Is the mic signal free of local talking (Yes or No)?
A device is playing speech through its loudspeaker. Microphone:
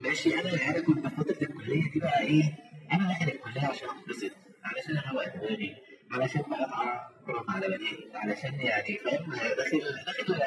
Yes